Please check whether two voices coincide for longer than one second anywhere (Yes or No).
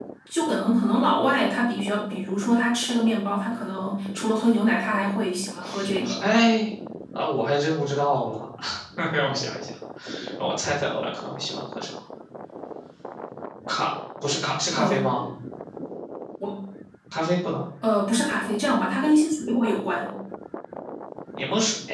No